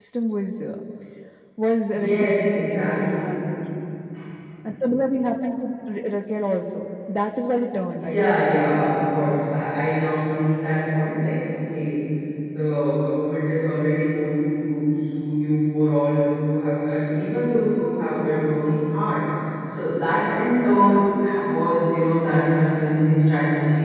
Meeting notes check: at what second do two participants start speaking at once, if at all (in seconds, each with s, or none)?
2.0 s